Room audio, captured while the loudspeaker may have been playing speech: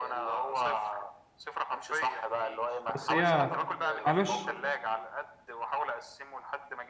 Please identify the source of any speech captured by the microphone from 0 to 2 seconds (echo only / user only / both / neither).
echo only